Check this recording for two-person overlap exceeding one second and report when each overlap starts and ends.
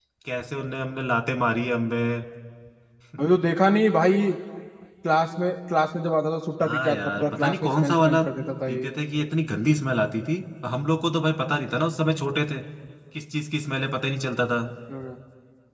6.6-8.2

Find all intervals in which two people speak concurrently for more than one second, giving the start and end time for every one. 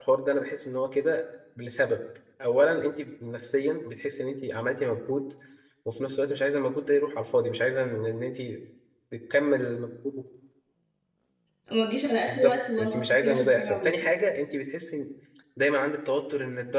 12.3-13.9

